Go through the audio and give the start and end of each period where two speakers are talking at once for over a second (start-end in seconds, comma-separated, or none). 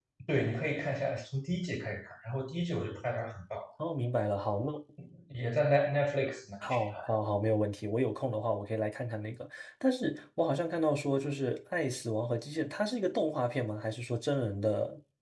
none